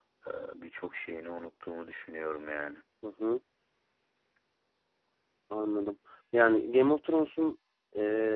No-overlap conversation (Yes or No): Yes